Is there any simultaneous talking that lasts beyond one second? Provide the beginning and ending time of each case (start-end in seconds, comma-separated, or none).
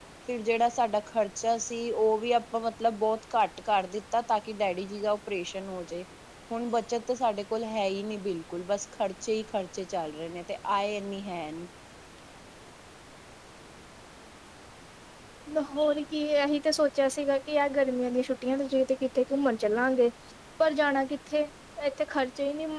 none